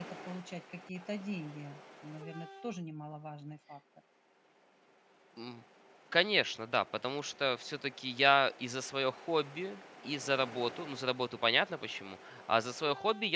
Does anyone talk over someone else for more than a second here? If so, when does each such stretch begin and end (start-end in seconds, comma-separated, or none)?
none